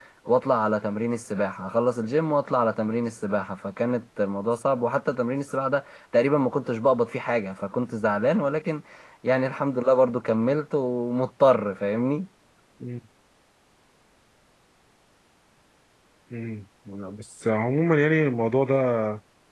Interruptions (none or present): none